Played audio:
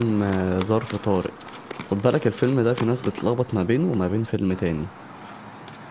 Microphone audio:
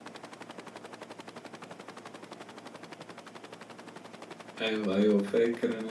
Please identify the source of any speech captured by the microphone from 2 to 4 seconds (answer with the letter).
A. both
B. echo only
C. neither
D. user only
C